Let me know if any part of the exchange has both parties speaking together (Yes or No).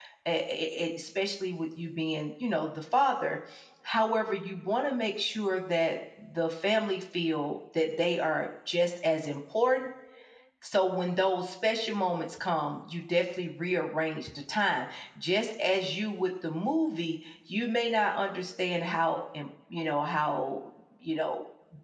No